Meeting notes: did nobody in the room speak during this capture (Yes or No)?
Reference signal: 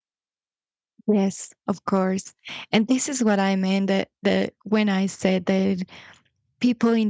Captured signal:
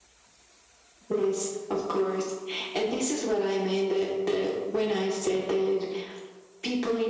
Yes